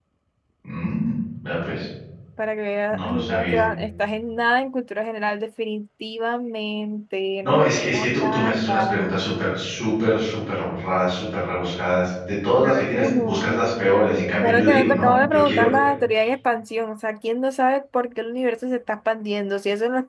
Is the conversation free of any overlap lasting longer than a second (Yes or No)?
No